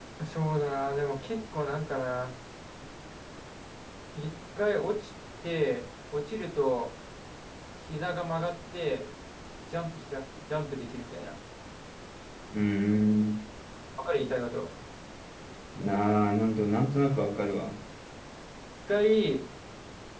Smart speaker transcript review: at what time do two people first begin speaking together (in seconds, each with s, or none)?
none